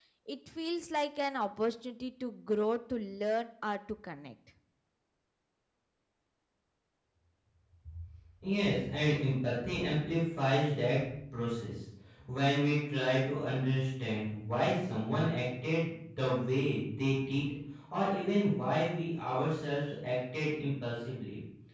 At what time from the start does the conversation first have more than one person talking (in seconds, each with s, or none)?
none